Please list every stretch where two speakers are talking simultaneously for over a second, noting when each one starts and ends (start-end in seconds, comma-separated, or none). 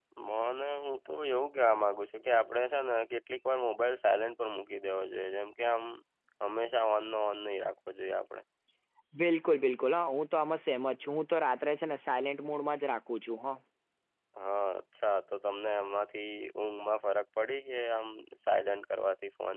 none